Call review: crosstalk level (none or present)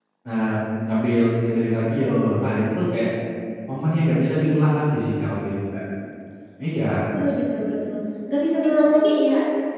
none